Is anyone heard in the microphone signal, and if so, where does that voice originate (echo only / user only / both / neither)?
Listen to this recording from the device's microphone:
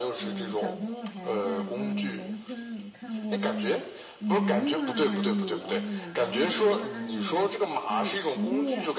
both